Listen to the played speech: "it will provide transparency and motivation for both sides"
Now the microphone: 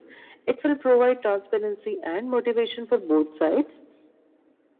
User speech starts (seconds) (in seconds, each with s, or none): none